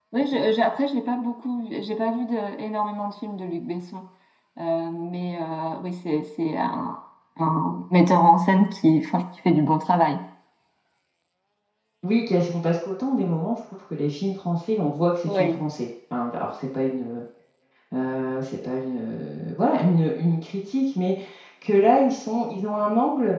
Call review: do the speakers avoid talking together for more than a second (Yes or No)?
Yes